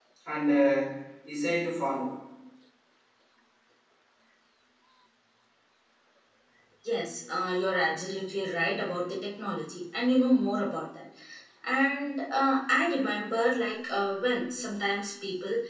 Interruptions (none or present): none